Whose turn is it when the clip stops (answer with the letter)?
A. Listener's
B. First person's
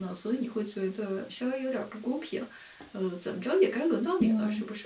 A